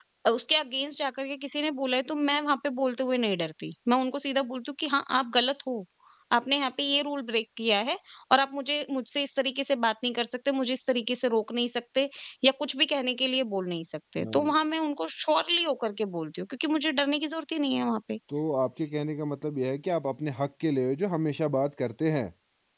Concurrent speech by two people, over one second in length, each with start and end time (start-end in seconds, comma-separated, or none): none